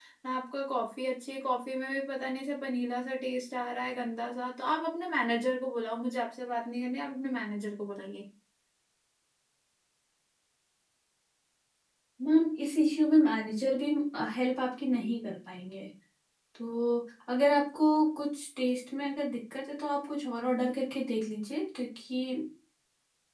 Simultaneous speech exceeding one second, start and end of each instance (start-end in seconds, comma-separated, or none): none